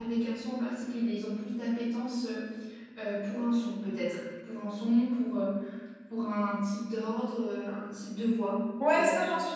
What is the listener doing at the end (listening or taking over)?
taking over